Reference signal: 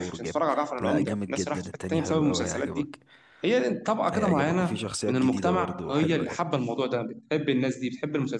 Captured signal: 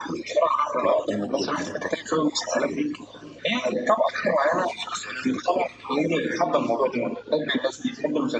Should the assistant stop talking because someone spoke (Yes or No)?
No